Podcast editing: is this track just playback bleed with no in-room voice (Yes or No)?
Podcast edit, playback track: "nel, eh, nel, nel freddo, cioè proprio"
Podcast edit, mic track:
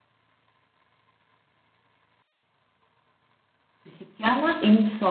No